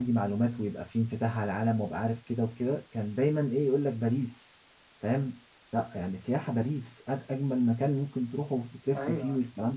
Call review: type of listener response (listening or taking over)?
taking over